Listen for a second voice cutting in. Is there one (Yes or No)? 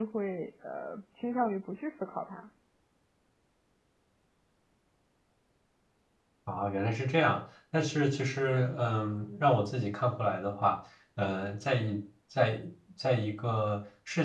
No